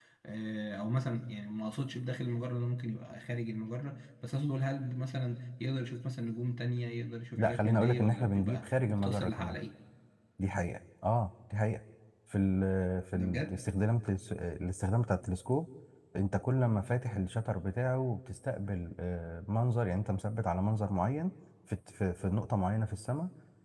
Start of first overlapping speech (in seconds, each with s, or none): 7.3 s